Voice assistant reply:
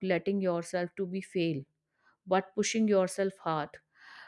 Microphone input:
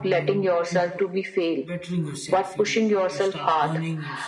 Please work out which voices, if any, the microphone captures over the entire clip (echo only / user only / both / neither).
both